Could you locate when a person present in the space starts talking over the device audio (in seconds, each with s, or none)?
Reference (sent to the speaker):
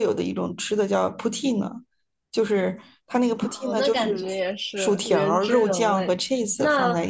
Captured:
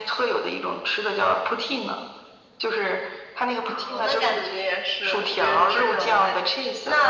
none